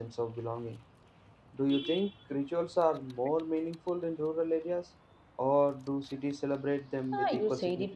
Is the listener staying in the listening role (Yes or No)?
No